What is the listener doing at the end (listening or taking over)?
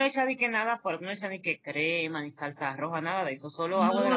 taking over